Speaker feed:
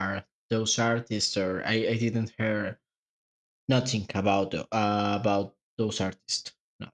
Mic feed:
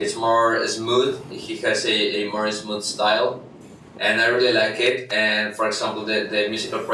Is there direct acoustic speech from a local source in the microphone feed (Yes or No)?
Yes